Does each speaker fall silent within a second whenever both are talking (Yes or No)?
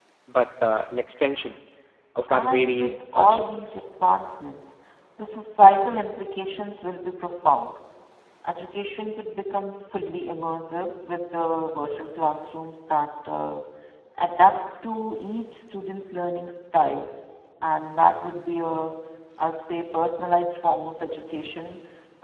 No